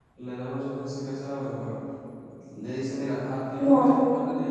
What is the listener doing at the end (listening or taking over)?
listening